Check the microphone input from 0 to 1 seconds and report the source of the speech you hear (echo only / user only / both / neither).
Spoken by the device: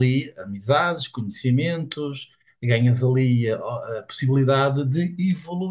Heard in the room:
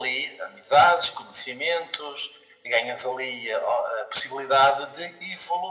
echo only